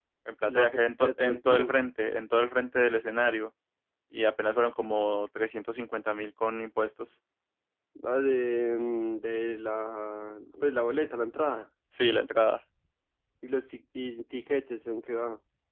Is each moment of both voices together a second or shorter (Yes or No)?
No